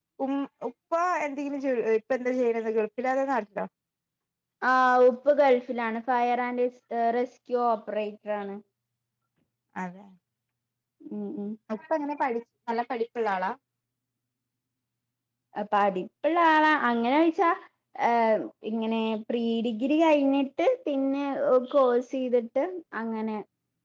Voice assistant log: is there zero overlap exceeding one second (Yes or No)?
Yes